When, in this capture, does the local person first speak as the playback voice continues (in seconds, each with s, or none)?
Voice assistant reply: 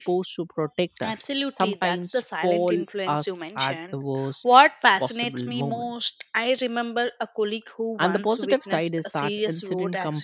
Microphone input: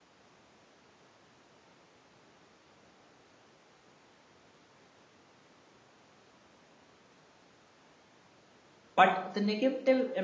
8.9 s